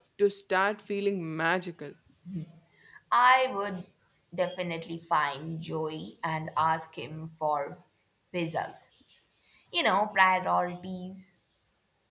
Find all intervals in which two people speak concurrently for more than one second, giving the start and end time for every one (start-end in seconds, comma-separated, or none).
none